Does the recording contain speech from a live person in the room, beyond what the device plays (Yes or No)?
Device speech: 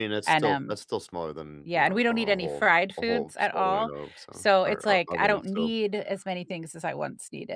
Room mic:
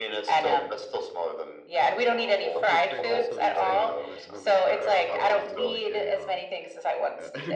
Yes